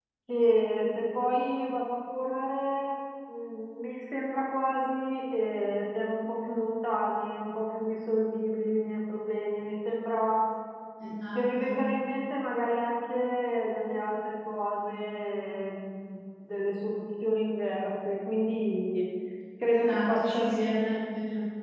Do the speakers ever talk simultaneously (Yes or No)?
Yes